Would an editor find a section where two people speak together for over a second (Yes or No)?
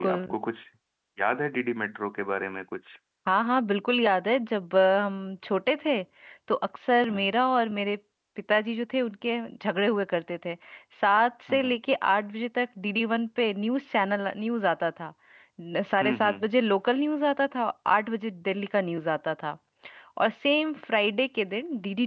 No